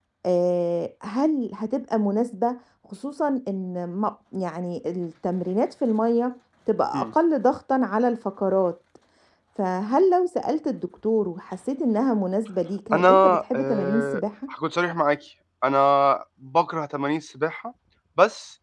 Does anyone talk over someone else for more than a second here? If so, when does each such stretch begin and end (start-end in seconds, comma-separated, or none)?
12.9-14.2